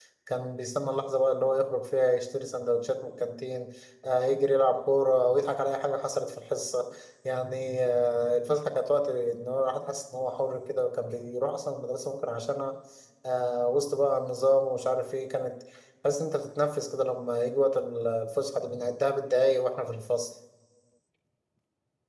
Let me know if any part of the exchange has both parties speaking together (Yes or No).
No